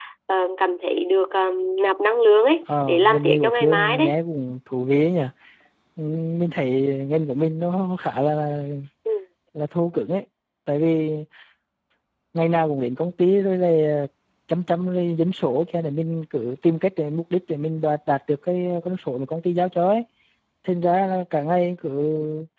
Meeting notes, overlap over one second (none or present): present